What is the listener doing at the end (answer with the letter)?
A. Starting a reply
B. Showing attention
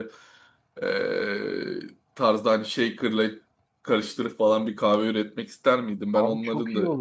A